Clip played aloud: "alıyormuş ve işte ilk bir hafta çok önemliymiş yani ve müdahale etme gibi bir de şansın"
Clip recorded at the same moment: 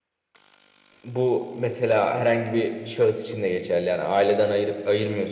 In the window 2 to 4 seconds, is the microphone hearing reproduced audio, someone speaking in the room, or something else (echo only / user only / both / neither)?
user only